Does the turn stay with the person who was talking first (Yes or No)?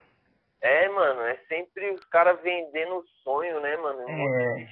Yes